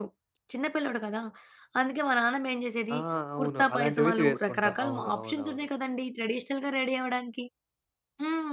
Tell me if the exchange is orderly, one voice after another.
No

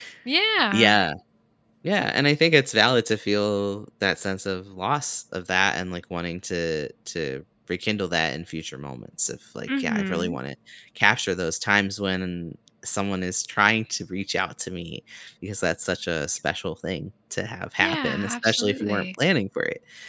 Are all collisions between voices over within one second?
No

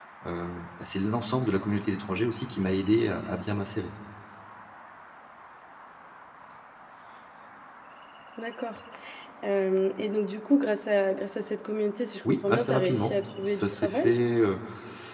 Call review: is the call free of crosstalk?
No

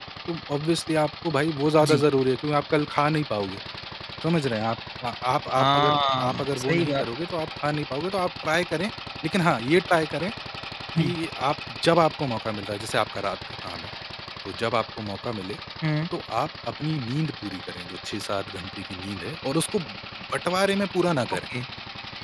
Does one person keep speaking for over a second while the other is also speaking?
Yes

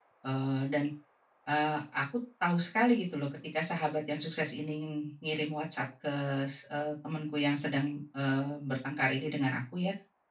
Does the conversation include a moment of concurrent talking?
No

